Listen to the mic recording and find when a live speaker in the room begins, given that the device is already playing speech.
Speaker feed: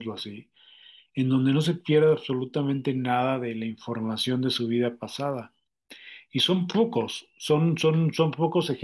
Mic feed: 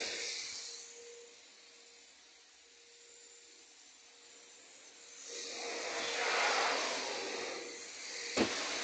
none

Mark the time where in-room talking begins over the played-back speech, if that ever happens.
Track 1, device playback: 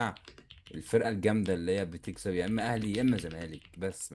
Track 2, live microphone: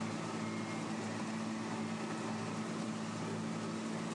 none

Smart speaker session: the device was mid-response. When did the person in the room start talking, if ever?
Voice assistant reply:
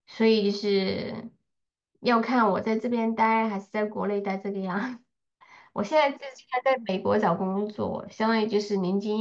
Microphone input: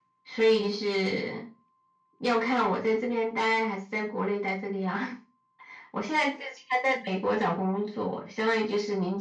none

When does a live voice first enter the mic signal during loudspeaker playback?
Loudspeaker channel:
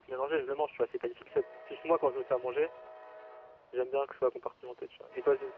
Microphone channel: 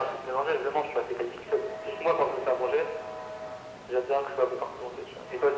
none

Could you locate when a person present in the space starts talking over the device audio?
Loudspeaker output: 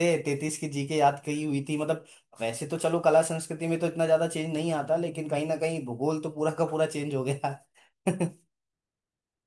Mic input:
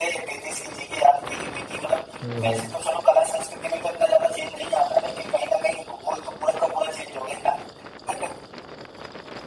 2.2 s

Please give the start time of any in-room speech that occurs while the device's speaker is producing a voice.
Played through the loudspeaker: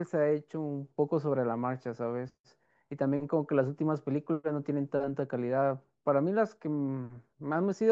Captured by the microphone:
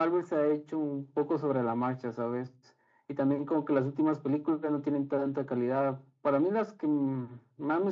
none

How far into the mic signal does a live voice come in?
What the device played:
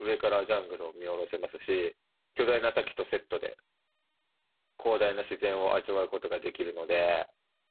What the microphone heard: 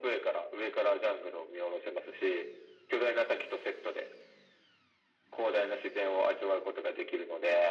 none

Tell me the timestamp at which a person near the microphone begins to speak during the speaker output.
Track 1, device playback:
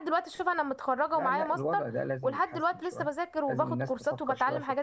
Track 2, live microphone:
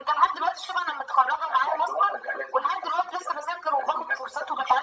none

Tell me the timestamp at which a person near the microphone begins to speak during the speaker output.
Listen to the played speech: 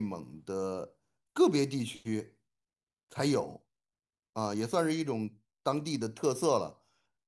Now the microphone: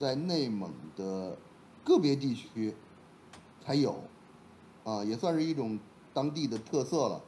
none

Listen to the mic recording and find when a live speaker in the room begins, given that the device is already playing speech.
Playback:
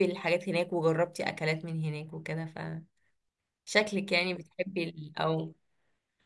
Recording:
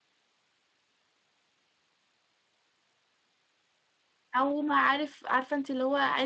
4.4 s

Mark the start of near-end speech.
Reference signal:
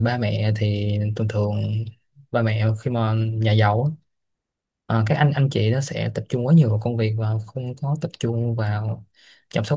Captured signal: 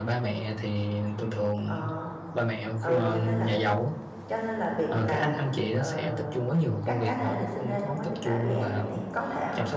1.6 s

